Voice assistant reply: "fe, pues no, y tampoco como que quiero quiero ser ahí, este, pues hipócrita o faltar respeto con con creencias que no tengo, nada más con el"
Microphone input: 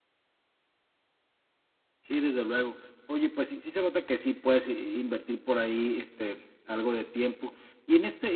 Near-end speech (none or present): present